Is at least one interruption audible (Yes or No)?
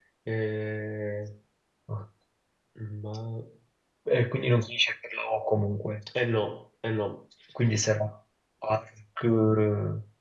No